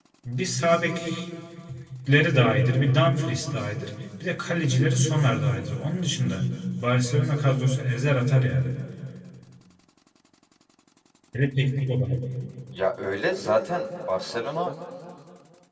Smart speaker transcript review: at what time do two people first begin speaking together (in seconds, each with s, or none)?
none